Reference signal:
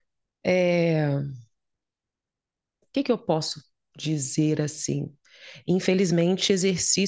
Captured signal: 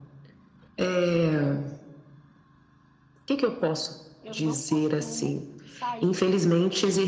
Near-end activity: present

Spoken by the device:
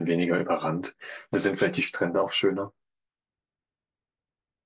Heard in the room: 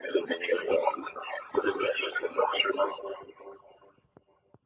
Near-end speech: none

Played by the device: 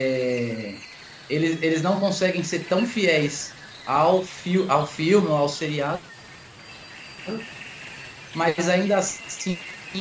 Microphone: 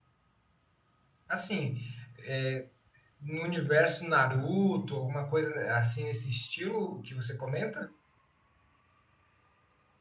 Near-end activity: present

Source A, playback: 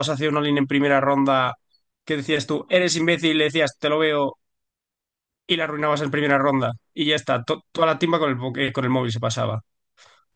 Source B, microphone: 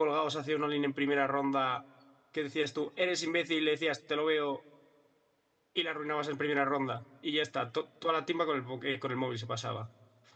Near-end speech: none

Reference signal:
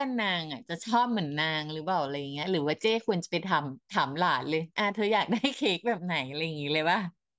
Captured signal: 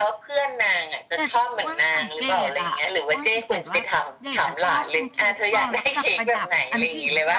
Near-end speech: present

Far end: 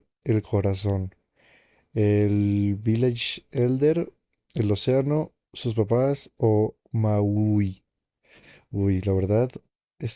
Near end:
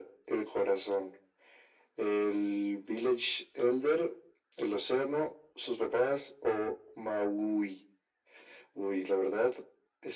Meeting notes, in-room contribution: none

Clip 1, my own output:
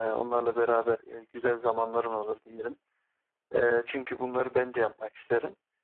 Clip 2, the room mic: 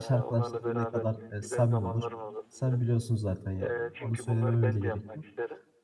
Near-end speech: present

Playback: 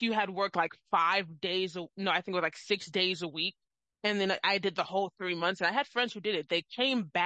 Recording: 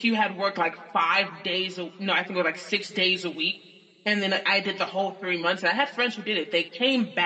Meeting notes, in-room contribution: none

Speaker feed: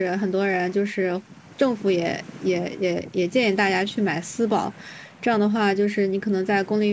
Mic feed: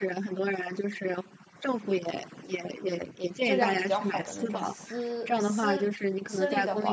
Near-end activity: present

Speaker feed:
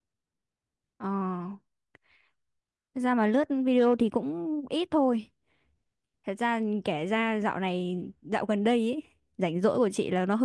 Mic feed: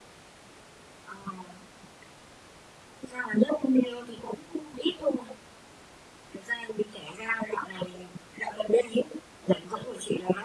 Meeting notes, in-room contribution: none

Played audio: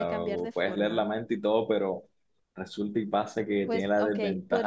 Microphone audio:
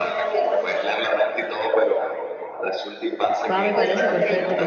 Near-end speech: present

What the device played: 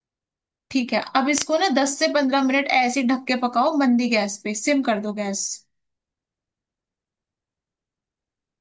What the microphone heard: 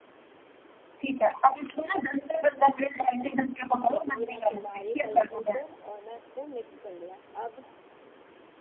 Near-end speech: present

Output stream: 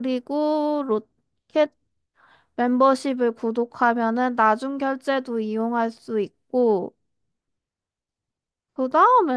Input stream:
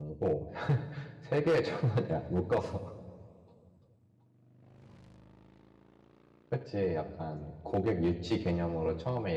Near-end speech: present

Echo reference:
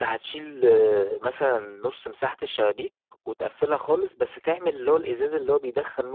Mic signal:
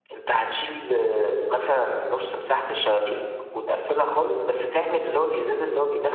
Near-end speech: none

